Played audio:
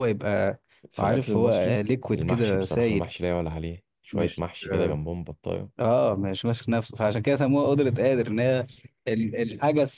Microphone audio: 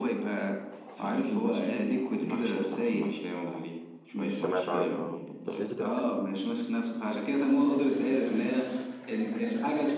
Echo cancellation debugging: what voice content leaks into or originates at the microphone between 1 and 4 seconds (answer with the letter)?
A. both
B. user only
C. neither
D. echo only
D